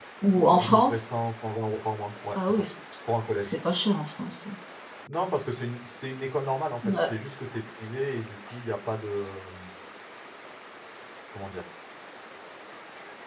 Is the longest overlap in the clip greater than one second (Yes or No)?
No